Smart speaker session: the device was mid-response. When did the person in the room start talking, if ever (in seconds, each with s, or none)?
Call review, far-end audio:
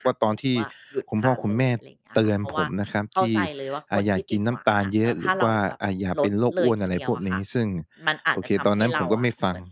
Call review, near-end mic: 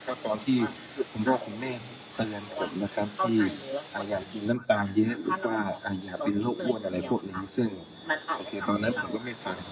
none